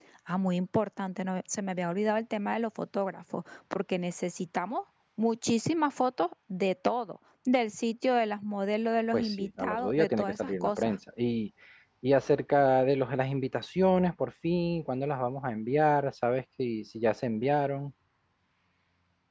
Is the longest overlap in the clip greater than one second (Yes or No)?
Yes